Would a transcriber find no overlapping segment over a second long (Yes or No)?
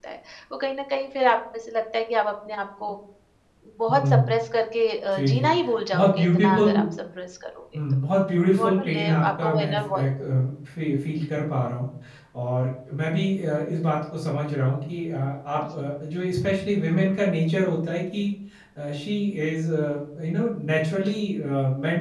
No